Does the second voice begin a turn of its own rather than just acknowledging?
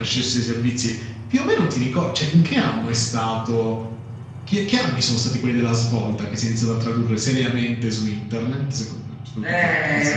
Yes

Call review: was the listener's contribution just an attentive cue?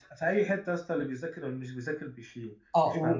No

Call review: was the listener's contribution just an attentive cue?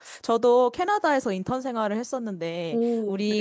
Yes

